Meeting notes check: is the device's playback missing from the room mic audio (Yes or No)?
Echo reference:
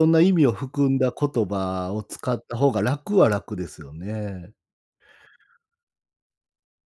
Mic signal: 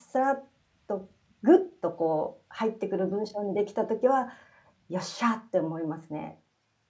Yes